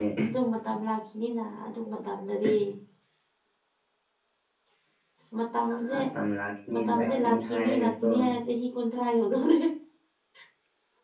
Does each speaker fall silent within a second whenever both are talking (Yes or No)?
No